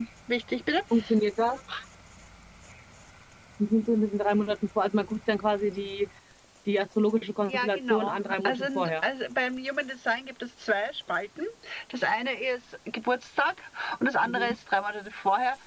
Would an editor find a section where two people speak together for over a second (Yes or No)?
Yes